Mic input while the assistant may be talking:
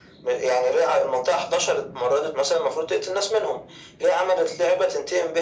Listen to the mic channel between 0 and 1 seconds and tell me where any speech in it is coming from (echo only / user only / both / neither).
echo only